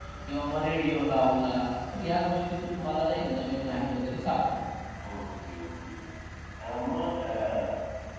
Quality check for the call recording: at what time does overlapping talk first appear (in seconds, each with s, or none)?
none